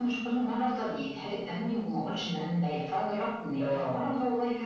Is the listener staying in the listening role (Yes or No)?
Yes